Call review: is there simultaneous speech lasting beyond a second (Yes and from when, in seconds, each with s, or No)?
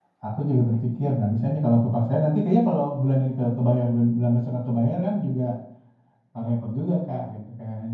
No